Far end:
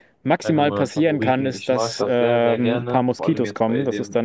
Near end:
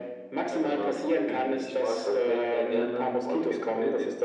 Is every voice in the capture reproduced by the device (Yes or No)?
Yes